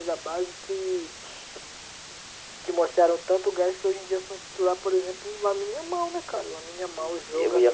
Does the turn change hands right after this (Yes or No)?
Yes